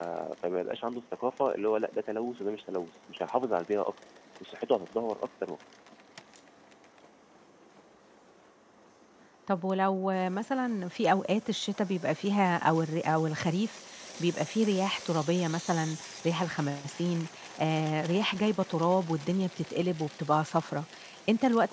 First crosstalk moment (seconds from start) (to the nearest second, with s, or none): none